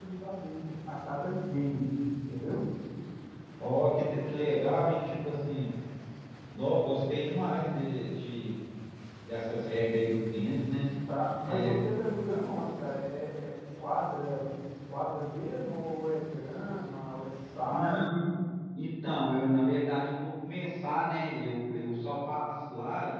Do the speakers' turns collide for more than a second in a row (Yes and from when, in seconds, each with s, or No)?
No